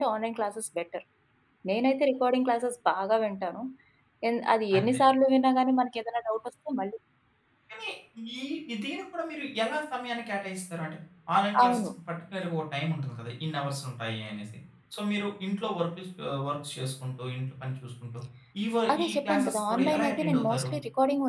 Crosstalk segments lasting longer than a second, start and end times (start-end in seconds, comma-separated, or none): 18.9-20.7